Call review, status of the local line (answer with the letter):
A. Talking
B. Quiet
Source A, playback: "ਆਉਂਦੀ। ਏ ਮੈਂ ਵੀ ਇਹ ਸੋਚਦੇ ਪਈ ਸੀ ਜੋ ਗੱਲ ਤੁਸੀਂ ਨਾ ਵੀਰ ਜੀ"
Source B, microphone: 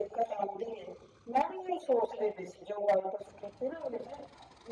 B